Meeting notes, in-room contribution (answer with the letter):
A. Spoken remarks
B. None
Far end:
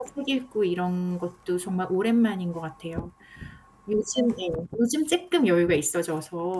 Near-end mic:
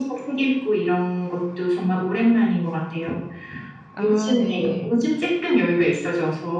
A